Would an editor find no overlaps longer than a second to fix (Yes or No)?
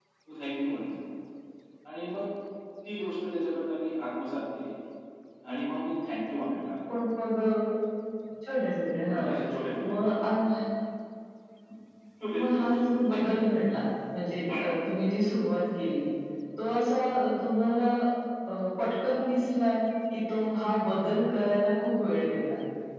No